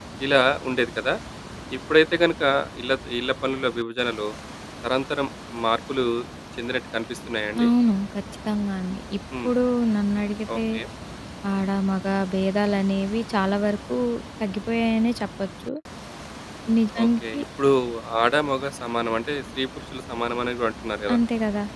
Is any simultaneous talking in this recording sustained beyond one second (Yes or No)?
No